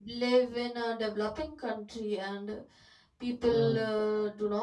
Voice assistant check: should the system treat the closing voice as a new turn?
No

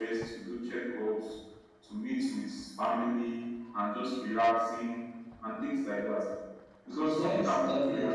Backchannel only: No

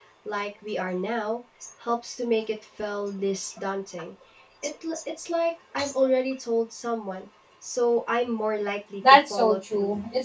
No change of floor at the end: No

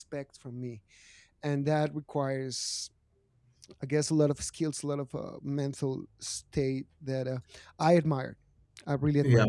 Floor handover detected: Yes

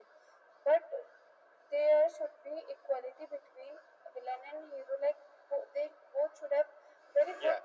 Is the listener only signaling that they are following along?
Yes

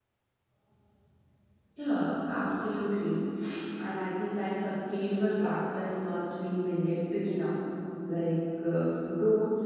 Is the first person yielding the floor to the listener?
No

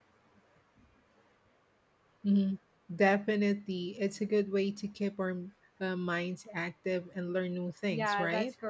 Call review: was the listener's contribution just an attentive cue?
No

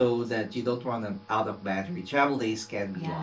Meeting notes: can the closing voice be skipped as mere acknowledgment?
No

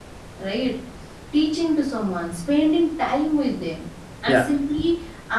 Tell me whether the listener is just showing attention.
Yes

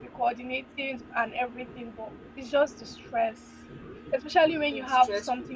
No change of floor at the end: Yes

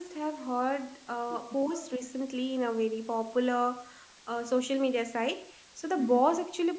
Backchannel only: Yes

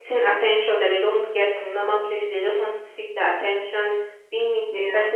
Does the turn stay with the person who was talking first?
Yes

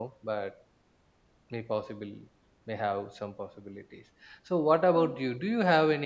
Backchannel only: Yes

